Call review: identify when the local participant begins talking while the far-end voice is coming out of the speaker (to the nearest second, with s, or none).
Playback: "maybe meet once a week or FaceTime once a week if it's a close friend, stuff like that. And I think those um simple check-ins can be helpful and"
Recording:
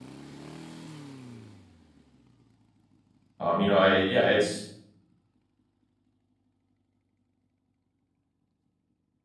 3 s